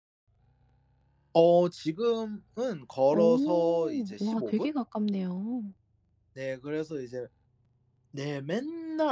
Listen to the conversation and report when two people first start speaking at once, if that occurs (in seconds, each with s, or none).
3.1 s